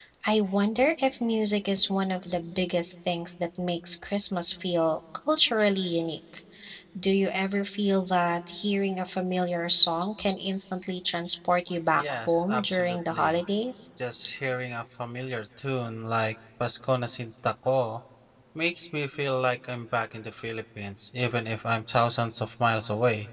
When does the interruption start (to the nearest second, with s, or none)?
12 s